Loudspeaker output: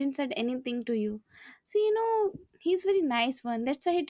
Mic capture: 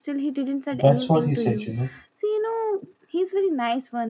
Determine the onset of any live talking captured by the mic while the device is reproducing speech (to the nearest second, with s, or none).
1 s